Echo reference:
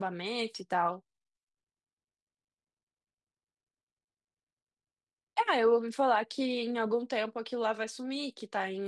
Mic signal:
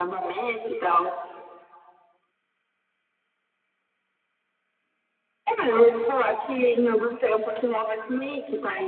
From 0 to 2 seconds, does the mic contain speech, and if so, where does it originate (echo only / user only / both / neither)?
echo only